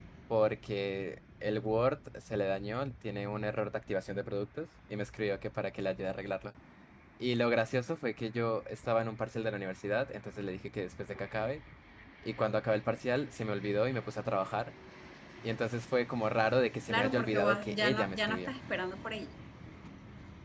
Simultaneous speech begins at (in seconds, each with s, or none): 16.9 s